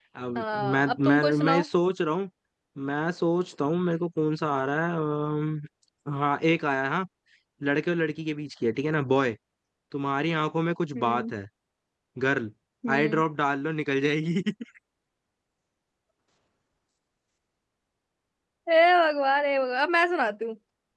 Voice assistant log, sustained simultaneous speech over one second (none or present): present